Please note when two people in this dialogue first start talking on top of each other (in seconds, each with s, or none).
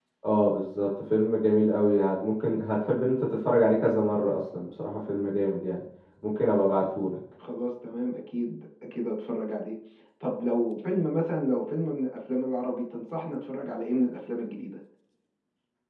none